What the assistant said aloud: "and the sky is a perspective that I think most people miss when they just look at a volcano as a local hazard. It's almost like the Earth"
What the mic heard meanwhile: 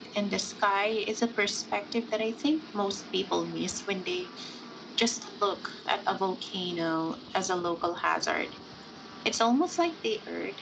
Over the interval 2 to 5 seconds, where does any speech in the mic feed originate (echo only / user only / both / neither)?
echo only